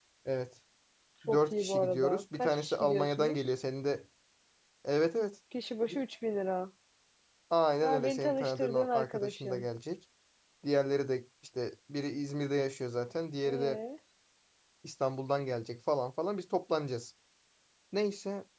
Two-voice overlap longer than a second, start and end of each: 1.3-3.5, 7.8-9.7

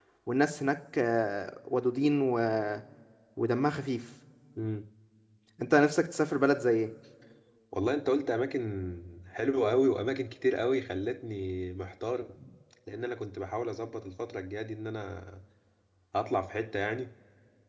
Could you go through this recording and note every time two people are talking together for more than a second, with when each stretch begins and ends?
none

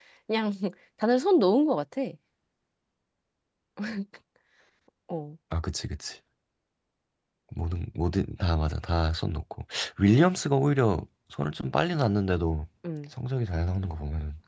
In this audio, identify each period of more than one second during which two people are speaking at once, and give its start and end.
none

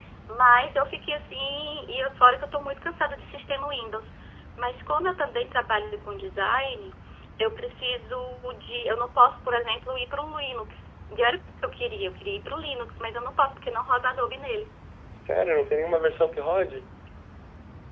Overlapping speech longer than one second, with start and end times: none

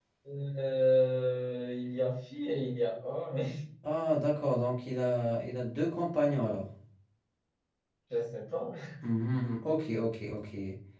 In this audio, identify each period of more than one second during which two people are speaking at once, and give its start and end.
none

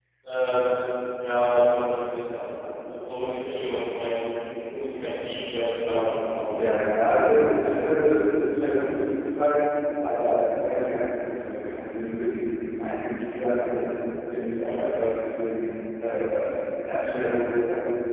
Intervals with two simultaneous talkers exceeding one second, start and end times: none

